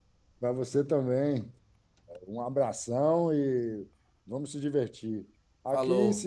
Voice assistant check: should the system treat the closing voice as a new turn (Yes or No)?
No